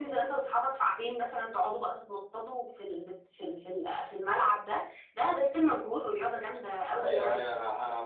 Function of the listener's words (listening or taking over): taking over